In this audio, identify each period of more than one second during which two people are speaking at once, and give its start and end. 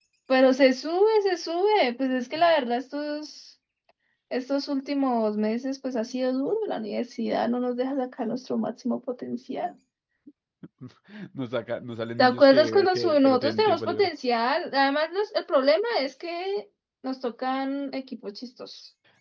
12.2-14.1

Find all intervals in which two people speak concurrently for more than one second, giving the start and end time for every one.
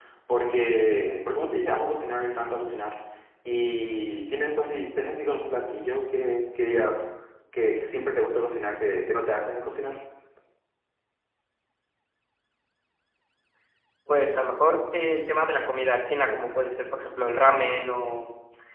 none

